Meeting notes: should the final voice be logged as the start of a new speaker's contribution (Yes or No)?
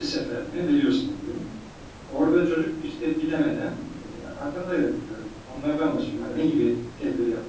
No